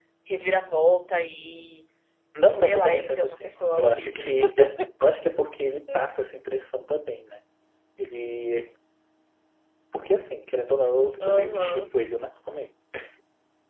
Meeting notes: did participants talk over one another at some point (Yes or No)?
Yes